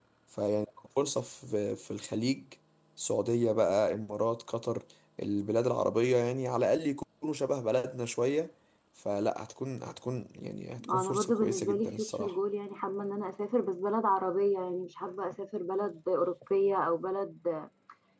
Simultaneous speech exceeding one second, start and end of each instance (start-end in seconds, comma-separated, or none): 10.9-12.3